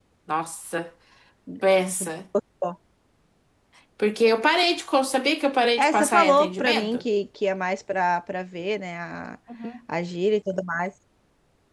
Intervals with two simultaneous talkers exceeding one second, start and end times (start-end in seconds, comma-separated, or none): 5.8-7.0